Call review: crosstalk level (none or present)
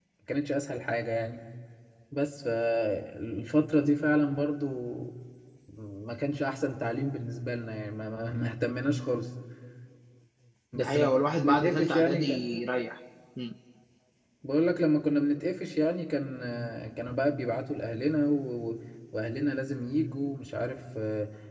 present